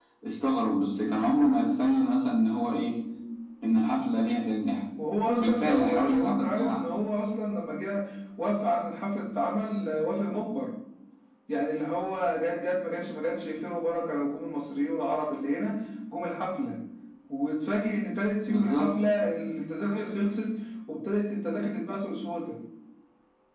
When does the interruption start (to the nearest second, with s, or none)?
5 s